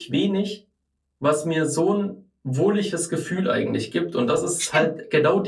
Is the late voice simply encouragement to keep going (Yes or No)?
Yes